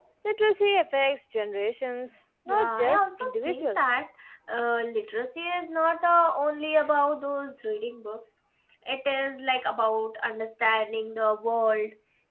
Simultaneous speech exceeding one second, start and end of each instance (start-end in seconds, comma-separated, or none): 2.5-3.9